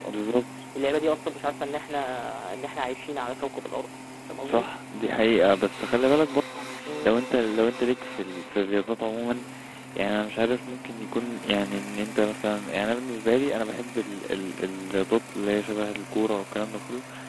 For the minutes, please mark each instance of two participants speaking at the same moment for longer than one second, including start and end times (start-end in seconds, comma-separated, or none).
none